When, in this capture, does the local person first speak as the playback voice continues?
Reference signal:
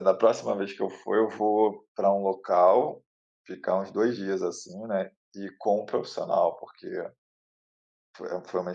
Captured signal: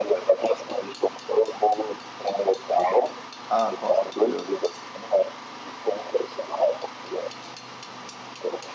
3.5 s

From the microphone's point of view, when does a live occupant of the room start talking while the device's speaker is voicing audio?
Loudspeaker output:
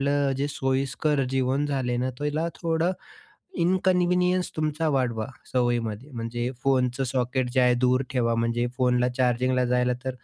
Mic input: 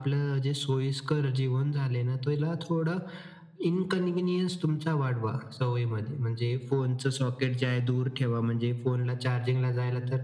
none

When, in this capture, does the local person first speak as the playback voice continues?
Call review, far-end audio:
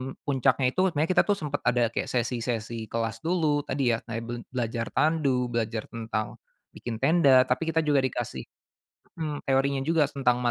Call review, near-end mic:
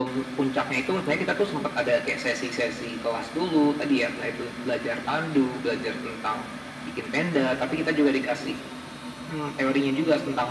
none

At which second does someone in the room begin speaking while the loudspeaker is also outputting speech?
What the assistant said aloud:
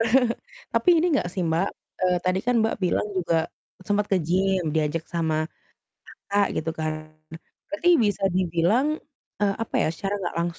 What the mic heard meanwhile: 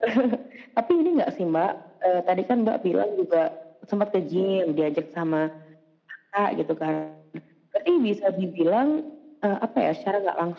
none

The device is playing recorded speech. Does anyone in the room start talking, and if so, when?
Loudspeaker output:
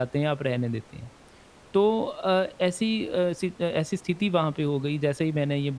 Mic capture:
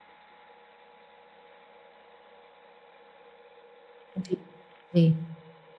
4.2 s

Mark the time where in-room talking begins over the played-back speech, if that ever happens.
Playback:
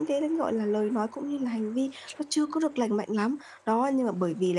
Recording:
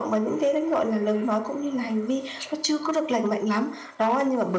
none

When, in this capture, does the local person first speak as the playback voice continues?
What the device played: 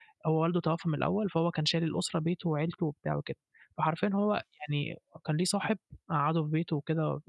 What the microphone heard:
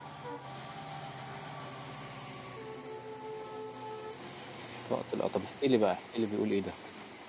4.8 s

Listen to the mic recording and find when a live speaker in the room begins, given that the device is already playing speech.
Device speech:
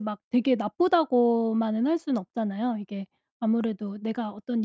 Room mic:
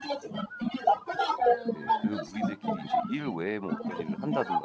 1.7 s

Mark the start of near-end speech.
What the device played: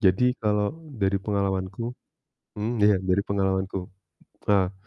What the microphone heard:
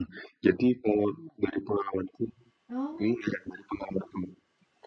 2.7 s

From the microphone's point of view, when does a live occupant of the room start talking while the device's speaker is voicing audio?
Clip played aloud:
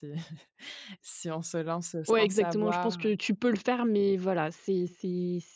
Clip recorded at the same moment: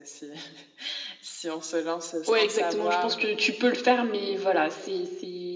none

